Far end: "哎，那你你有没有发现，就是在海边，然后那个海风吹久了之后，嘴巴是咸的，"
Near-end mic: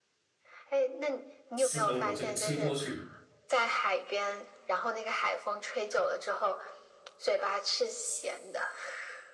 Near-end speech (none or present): present